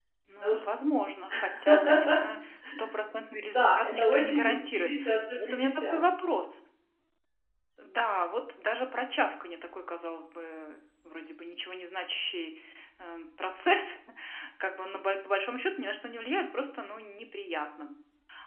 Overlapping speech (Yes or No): Yes